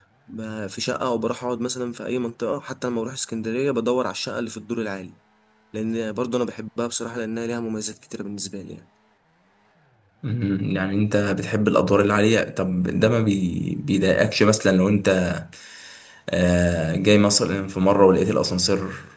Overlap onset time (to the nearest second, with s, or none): none